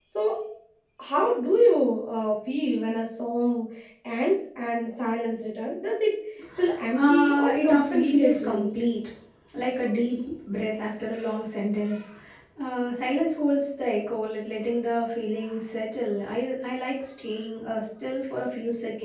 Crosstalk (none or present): present